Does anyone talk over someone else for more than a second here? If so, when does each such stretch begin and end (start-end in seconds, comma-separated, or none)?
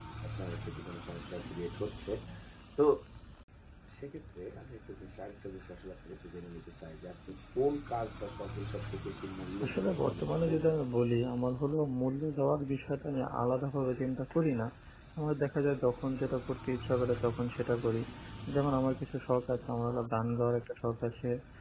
9.7-10.9